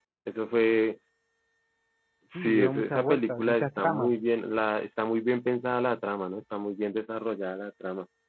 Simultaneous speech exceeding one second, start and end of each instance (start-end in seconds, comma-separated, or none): 2.4-4.1